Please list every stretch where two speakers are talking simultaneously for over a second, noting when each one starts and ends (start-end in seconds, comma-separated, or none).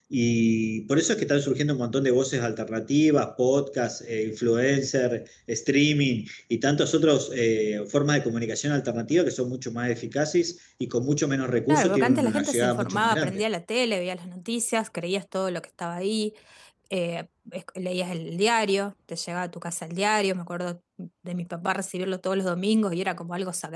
11.7-13.4